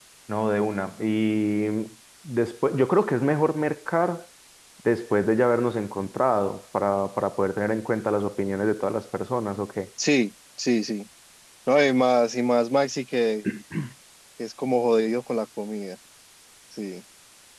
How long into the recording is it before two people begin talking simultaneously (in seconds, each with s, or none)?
none